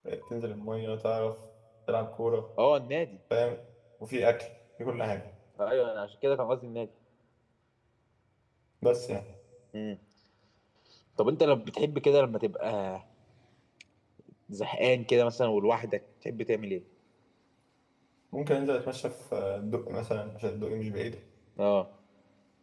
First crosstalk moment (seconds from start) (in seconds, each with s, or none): none